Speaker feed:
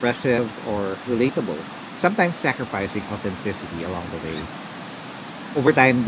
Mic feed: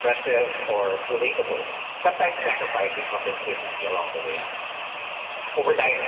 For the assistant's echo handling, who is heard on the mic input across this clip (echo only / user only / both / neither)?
echo only